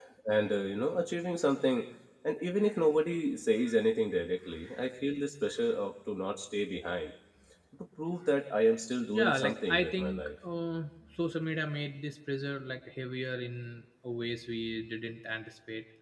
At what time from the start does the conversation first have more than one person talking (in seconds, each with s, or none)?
9.1 s